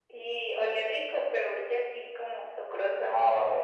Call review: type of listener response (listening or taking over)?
taking over